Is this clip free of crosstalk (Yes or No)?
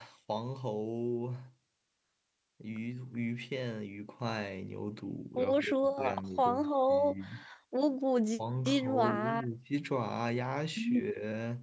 No